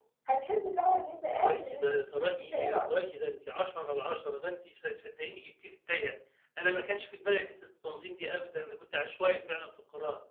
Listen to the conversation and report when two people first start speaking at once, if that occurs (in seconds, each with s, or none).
1.3 s